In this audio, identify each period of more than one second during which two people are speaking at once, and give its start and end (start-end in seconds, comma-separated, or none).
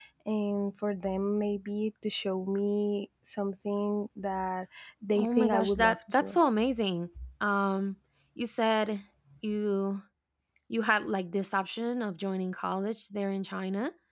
5.1-6.4